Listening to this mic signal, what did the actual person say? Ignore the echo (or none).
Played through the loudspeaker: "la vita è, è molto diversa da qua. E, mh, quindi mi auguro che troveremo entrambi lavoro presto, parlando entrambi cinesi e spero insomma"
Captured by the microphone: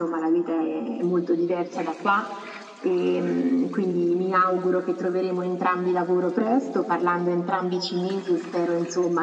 none